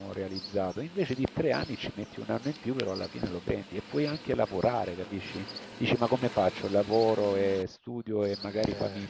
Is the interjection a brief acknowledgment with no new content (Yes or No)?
Yes